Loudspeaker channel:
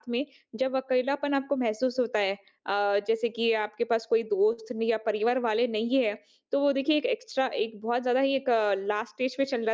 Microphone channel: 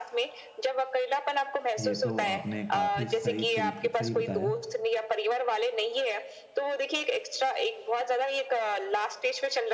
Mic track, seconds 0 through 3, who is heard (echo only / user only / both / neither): both